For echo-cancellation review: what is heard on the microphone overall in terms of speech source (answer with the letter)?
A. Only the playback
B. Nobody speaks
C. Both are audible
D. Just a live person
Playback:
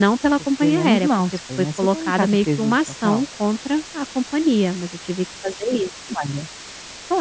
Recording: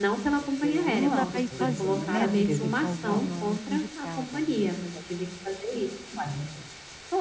C